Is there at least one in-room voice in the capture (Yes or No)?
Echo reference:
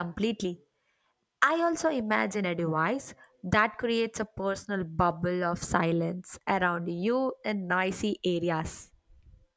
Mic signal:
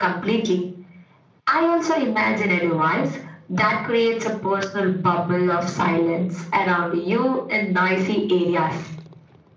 No